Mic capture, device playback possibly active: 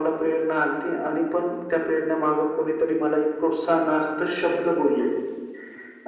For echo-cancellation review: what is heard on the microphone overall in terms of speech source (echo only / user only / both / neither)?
echo only